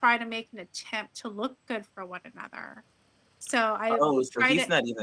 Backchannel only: No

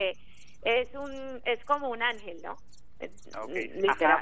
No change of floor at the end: No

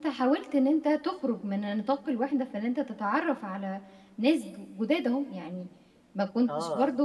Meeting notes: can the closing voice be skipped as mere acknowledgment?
Yes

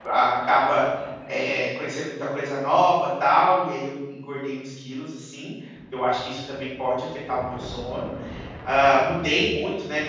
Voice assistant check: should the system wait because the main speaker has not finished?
Yes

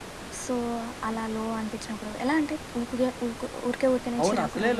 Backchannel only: No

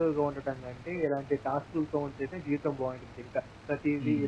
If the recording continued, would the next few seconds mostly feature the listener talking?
Yes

